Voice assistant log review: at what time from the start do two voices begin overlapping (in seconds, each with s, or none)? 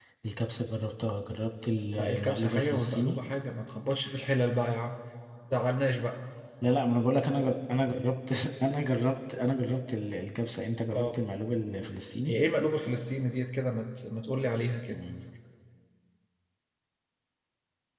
2.0 s